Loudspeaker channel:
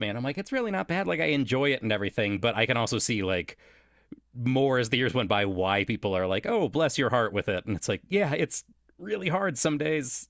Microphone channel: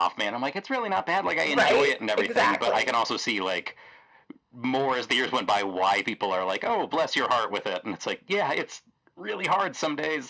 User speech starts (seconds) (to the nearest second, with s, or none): 1 s